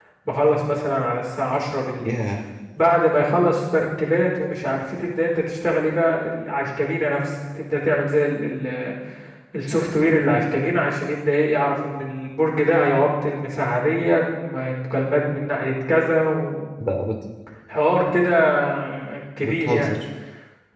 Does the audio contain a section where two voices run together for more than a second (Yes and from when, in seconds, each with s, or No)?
No